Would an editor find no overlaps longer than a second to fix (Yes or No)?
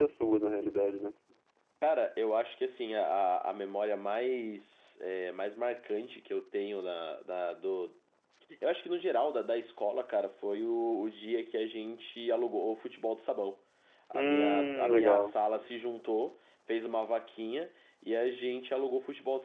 No